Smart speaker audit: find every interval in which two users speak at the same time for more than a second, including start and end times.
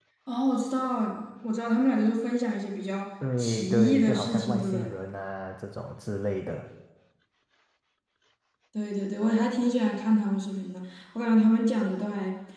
3.4-4.9

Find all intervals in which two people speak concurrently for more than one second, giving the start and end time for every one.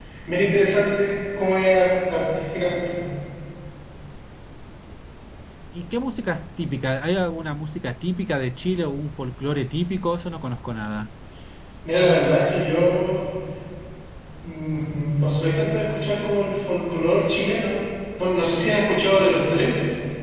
none

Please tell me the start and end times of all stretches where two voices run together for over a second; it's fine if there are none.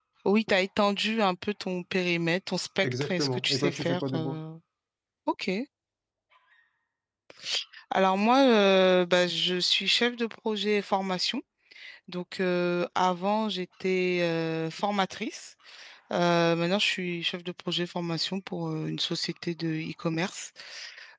2.8-4.4

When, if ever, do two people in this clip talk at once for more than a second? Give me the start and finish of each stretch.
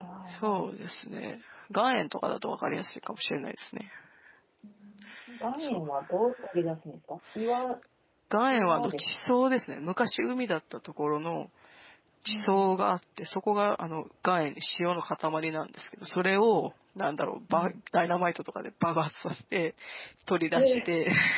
none

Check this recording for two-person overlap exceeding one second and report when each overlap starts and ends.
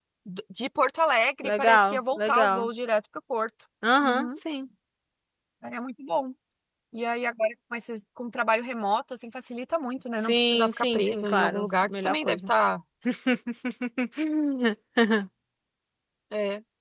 1.4-2.7, 10.2-12.5

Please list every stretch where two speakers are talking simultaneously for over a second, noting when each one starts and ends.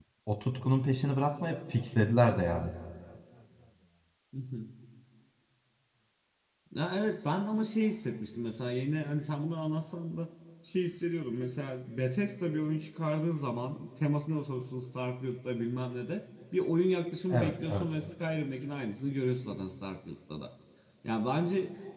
none

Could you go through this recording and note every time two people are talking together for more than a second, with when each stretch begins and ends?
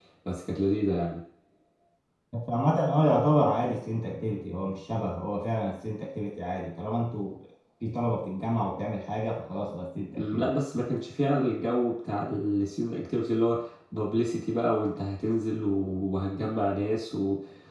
none

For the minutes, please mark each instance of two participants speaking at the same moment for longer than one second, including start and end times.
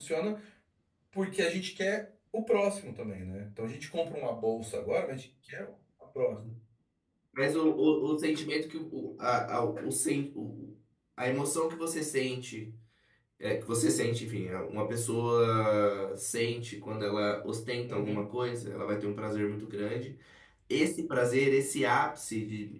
none

